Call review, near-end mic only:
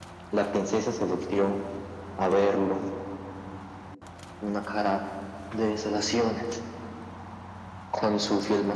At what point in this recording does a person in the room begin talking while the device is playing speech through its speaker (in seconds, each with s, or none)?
none